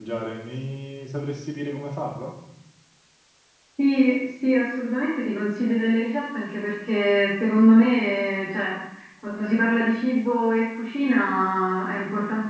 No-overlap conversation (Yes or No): Yes